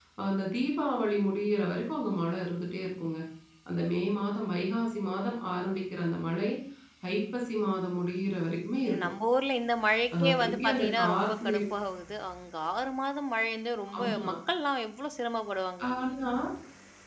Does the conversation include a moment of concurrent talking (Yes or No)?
Yes